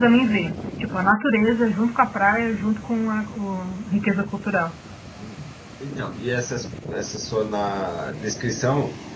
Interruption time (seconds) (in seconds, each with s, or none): none